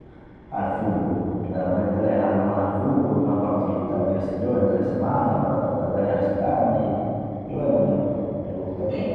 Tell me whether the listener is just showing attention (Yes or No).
No